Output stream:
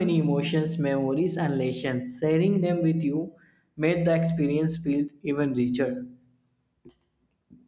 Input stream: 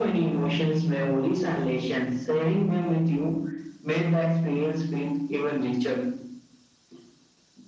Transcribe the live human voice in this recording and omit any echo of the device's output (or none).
none